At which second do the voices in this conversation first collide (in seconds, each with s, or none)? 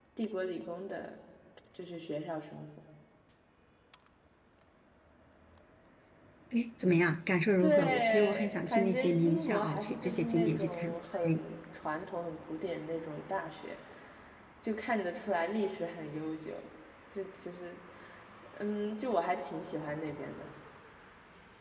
7.6 s